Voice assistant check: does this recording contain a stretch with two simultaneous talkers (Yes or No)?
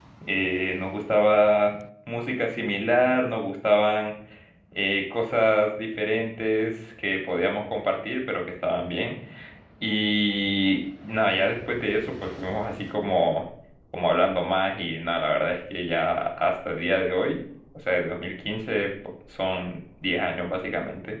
No